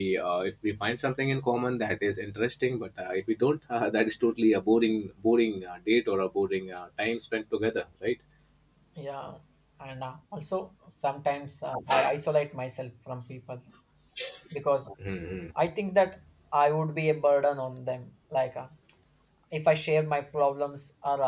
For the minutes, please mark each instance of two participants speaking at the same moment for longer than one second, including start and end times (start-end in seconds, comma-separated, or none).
none